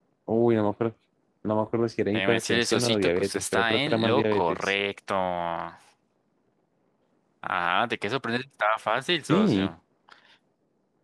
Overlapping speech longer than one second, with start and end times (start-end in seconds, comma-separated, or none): 2.1-4.7